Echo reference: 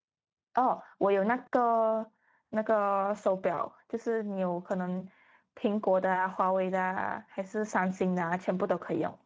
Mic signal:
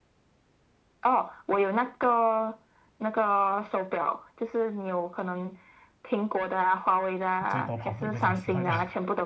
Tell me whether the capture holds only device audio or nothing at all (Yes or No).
No